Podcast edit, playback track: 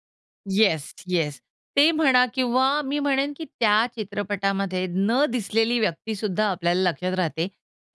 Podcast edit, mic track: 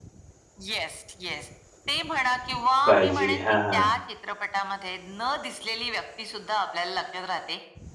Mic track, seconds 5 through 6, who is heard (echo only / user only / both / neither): echo only